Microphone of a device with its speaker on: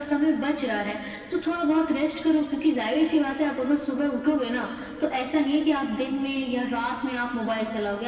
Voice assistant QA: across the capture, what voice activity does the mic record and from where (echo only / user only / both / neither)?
echo only